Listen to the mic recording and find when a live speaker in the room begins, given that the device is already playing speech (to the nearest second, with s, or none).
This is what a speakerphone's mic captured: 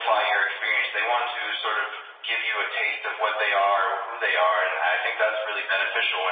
none